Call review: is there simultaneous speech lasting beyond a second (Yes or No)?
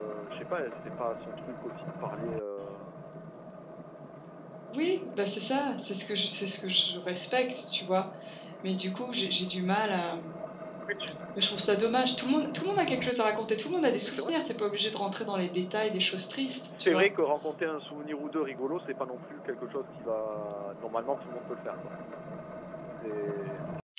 No